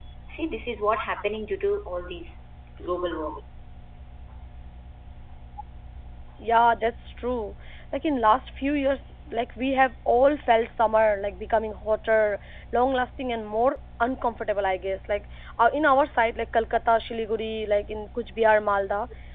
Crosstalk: none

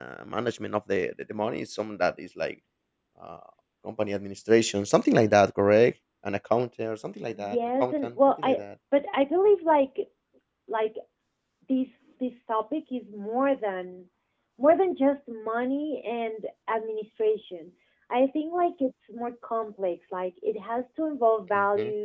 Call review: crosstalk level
present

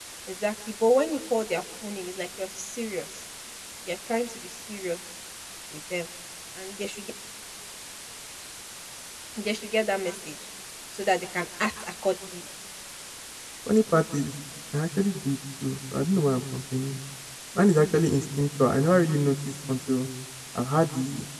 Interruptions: none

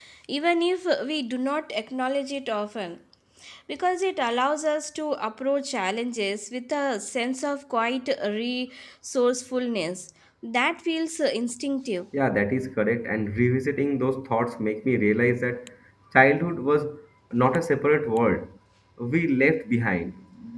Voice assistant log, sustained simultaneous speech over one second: none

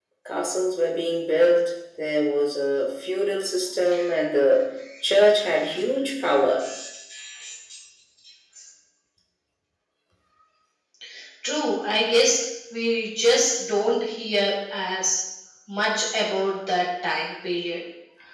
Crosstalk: none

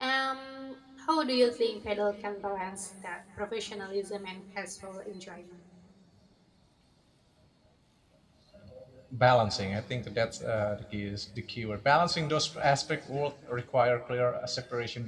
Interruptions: none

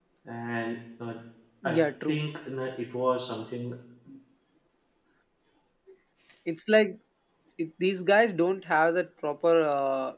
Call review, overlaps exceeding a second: none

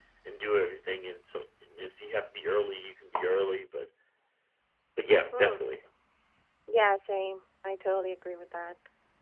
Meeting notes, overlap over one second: none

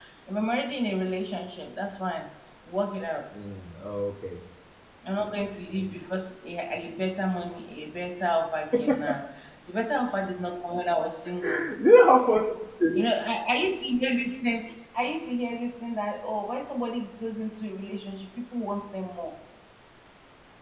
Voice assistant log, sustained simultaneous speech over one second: none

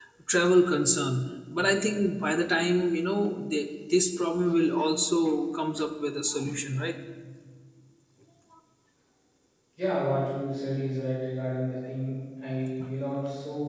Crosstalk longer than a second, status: none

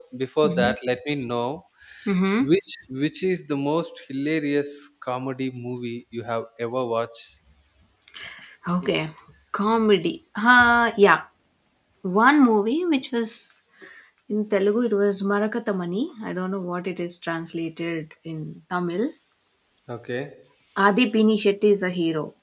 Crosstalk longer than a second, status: none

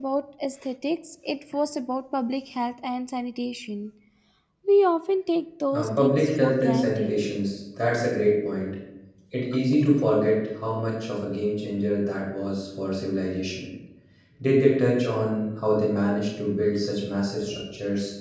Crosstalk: present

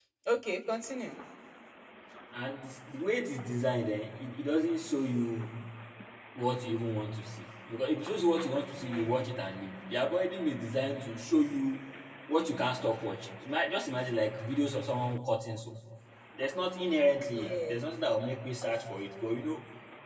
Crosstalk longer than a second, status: none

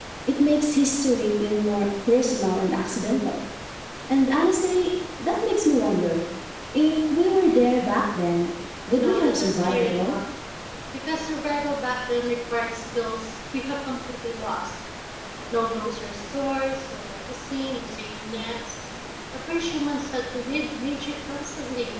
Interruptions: present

